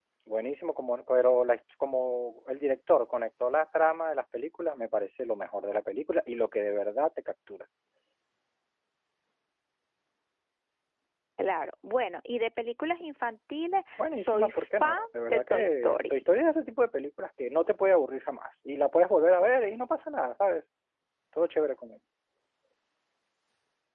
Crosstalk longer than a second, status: present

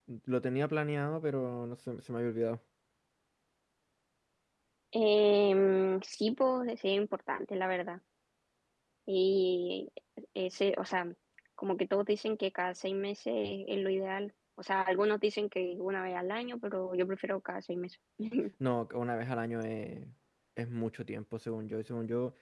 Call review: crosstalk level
none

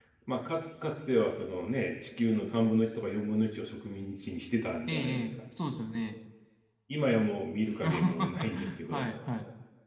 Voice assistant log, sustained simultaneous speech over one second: present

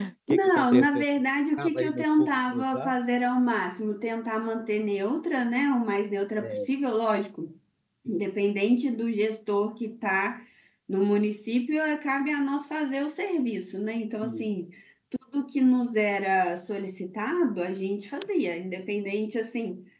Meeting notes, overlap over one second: present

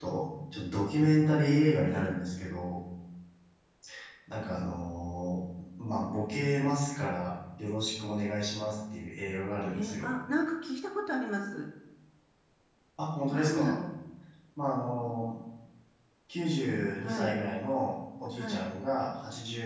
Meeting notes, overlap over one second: none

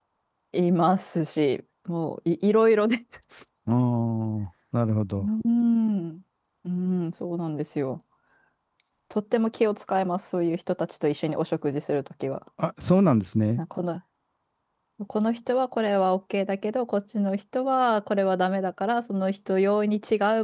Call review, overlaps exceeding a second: none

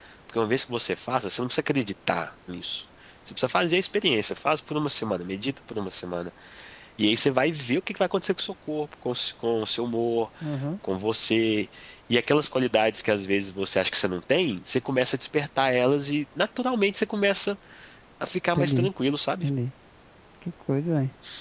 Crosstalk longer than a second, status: none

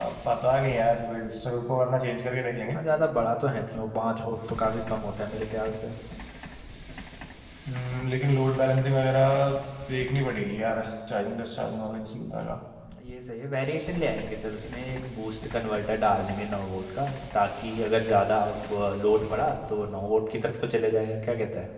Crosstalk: none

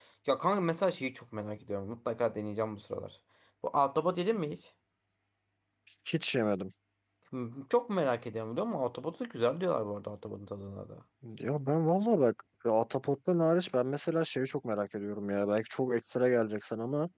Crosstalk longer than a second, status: none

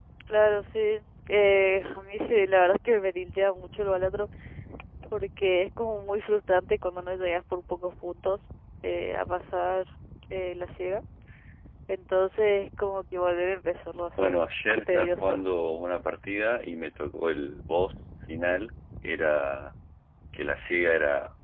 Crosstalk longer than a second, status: present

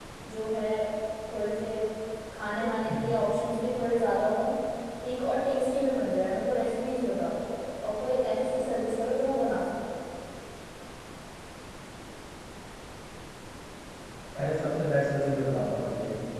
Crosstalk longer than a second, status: none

